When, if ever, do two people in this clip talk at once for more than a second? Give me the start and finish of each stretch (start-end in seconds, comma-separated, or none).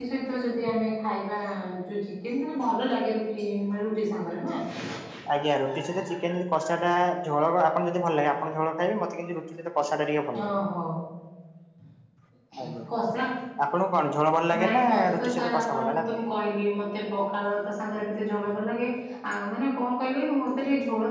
14.6-16.0